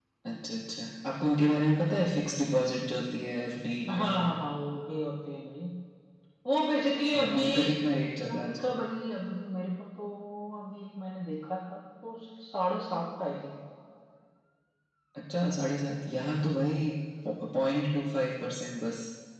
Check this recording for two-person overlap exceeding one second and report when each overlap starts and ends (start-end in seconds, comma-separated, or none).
none